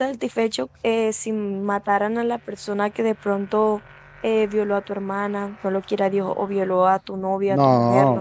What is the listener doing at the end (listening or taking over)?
taking over